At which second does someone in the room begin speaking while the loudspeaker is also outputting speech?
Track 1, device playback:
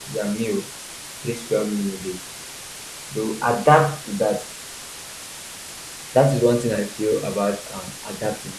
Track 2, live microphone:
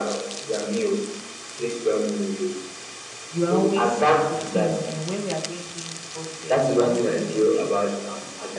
3 s

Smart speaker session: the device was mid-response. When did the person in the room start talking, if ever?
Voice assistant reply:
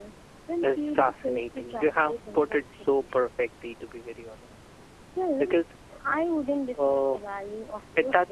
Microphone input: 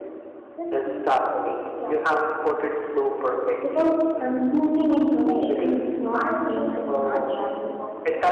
4 s

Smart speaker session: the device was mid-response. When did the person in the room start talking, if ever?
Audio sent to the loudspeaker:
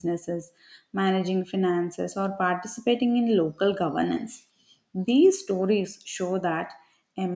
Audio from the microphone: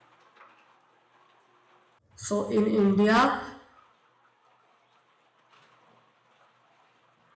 2 s

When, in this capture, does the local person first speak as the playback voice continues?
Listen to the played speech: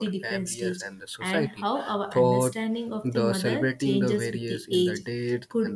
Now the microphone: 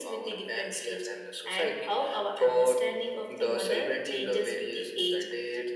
none

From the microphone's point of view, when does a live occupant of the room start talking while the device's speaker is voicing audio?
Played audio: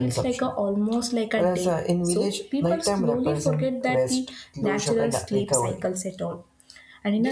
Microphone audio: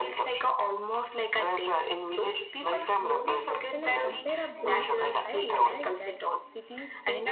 3 s

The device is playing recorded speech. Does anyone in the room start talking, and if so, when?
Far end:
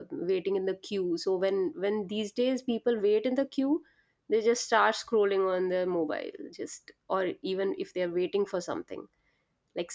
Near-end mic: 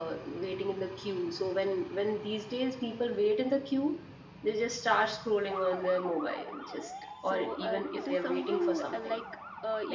7 s

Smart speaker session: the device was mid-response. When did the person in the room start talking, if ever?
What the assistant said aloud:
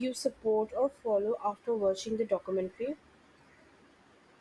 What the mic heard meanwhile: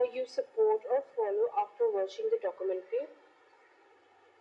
none

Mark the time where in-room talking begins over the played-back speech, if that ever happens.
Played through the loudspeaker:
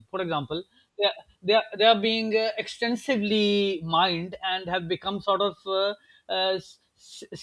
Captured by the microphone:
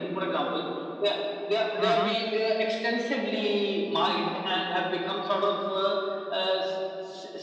2 s

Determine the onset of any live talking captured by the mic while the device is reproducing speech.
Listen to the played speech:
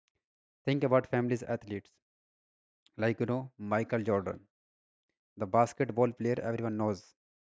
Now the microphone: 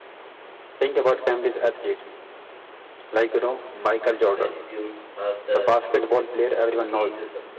4 s

